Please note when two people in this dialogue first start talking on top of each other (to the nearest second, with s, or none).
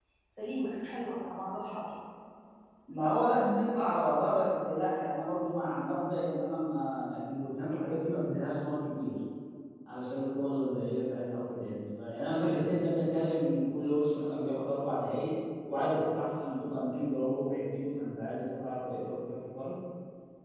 none